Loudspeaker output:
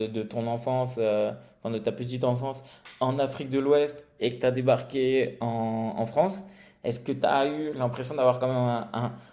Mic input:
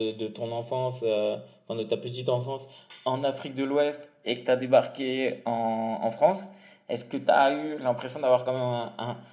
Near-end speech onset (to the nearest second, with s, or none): none